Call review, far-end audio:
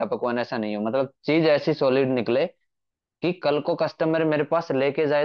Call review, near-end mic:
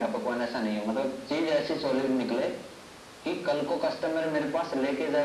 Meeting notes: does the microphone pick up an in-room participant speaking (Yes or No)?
No